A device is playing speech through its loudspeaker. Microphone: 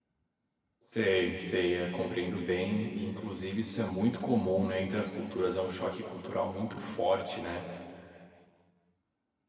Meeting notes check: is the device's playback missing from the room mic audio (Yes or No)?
Yes